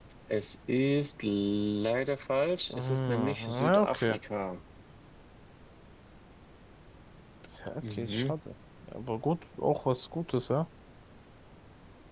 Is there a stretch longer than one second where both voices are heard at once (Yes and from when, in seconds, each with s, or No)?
Yes, from 2.7 s